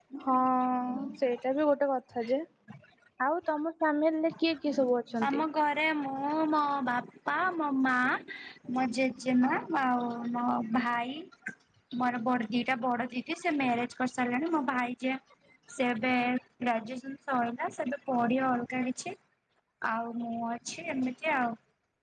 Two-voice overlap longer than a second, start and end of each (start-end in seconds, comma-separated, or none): none